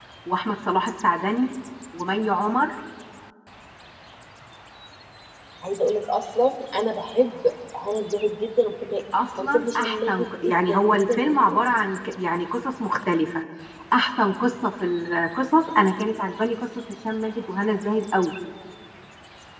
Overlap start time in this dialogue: 9.4 s

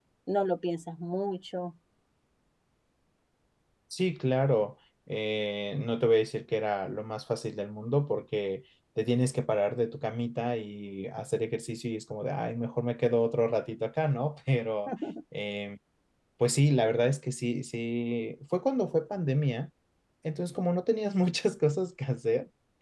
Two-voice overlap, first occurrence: none

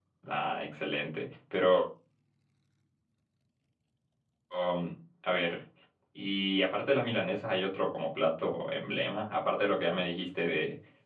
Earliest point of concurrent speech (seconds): none

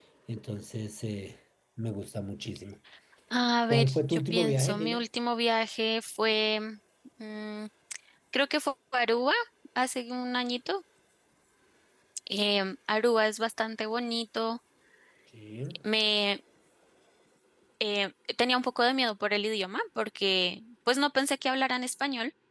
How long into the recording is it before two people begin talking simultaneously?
3.7 s

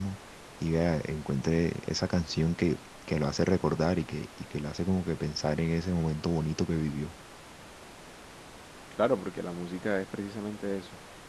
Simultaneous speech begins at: none

